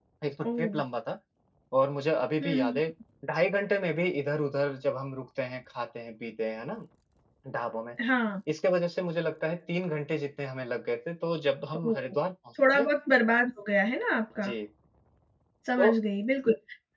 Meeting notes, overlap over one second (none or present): none